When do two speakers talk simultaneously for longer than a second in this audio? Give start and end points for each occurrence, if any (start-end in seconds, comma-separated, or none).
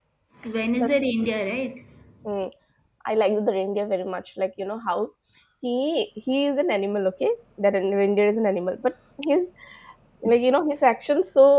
none